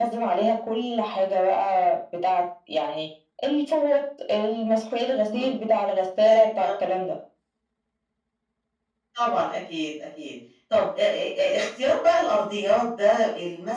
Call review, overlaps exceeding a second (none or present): none